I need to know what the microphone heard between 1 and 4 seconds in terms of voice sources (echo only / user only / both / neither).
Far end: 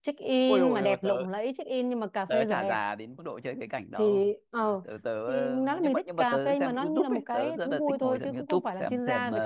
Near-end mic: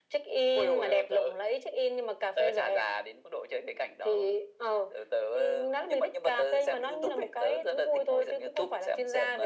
echo only